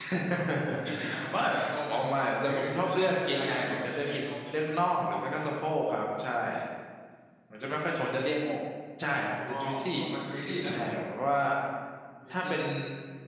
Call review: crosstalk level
present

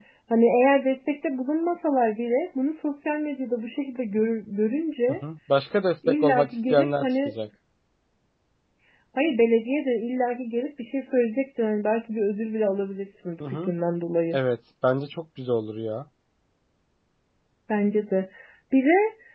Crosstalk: present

